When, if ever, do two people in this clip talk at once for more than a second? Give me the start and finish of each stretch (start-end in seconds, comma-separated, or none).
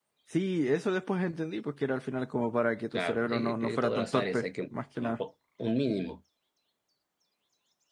2.9-4.5